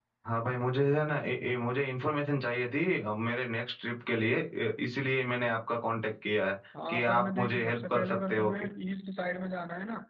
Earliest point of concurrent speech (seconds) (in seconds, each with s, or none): 6.7 s